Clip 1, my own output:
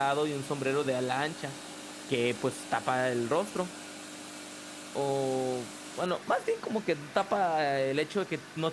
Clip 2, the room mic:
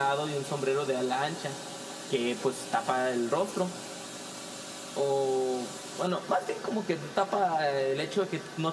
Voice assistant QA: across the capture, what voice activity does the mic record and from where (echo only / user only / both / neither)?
echo only